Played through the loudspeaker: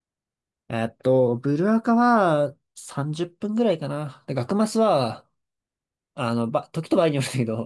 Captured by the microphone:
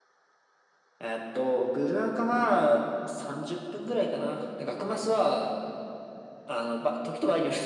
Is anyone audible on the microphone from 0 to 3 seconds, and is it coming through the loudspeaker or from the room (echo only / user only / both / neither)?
echo only